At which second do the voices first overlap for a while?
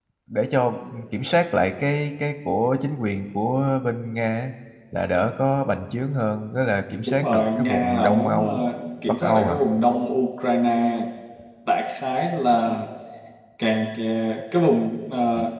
7.2 s

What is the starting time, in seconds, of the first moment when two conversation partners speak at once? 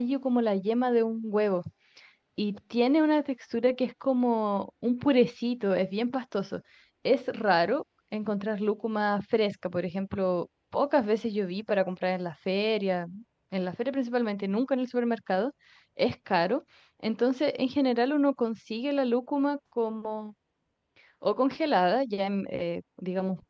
none

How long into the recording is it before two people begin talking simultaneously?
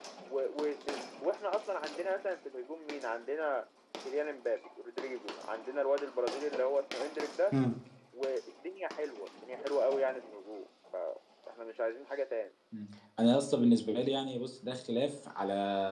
none

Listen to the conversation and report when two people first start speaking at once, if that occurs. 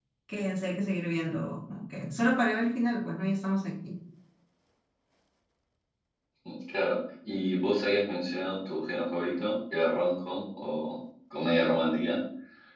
none

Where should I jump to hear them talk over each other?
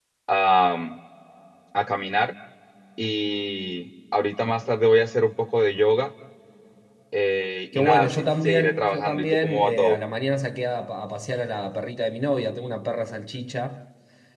7.7 s

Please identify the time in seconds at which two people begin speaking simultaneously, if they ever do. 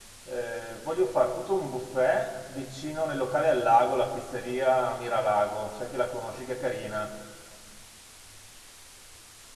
none

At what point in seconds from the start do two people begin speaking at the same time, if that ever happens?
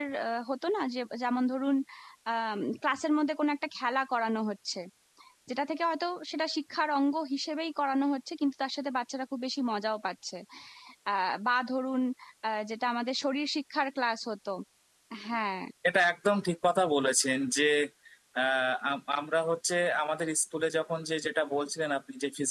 none

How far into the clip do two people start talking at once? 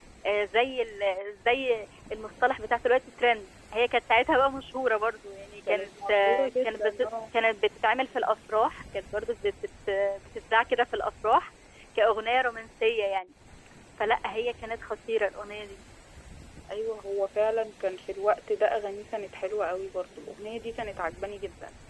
5.7 s

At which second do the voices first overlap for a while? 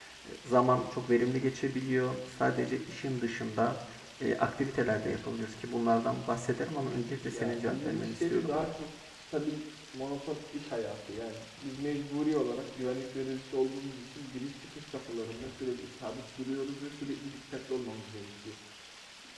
7.3 s

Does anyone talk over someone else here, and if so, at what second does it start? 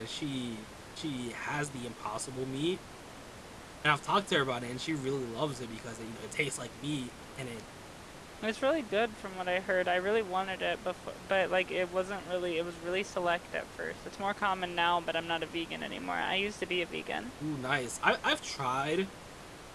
none

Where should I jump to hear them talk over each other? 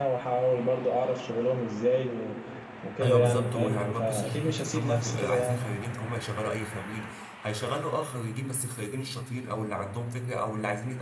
3.0 s

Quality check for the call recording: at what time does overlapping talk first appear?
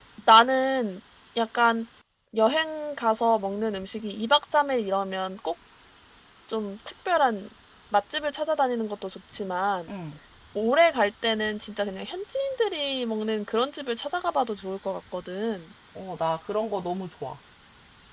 none

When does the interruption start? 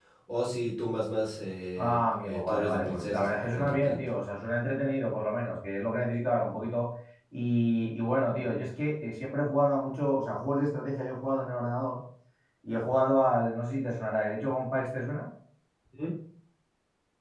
1.8 s

